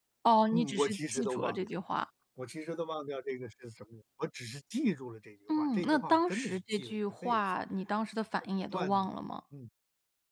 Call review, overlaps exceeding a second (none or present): present